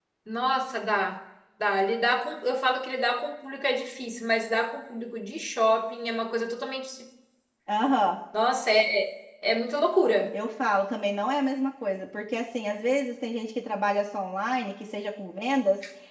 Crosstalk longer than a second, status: none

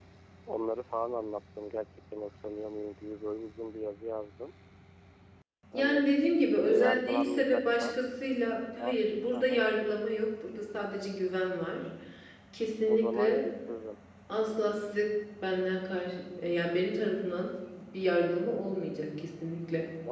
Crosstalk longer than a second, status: present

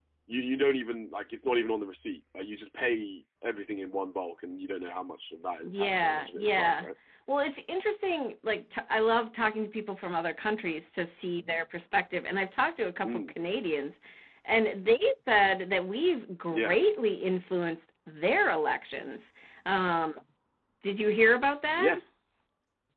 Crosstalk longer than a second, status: present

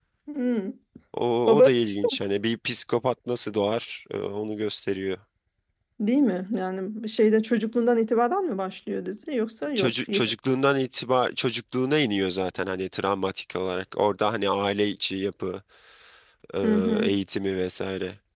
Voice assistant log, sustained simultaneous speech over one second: none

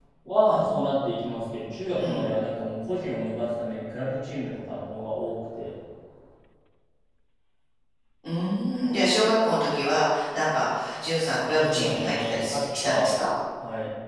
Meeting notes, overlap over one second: present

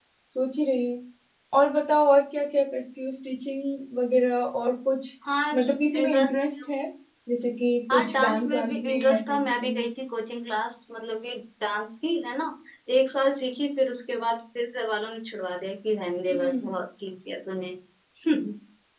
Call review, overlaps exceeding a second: present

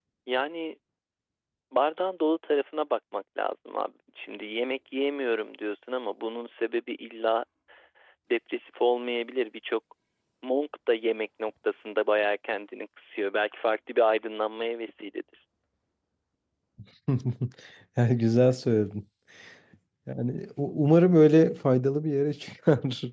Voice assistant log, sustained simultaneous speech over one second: none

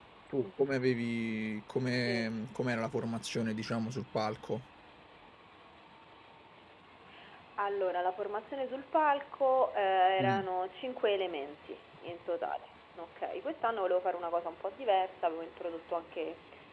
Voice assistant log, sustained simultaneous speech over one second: none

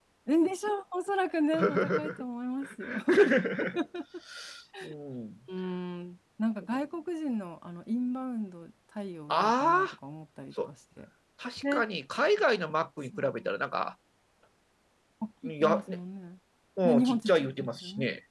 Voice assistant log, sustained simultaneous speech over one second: present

